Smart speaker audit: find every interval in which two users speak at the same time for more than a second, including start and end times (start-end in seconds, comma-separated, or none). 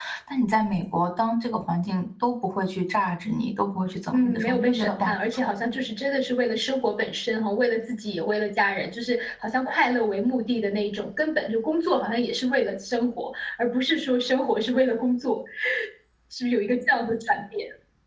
4.1-5.5